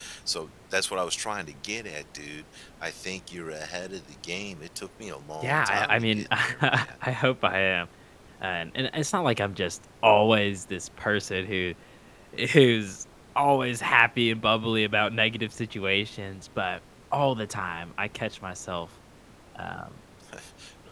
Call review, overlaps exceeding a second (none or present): present